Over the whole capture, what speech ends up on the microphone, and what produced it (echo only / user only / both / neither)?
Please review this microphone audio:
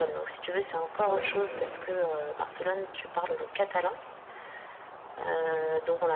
both